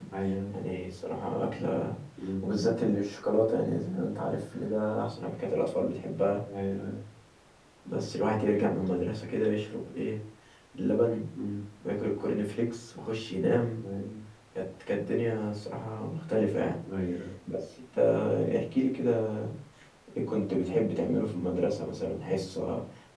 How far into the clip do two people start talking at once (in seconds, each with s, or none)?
none